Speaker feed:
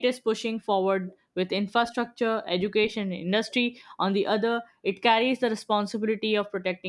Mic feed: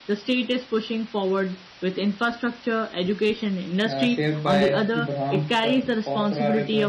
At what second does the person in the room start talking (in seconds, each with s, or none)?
3.8 s